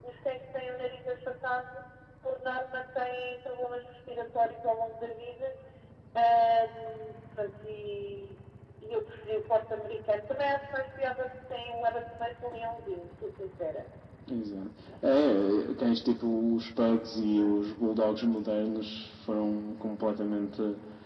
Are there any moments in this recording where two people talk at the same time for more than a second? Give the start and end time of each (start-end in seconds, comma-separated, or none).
none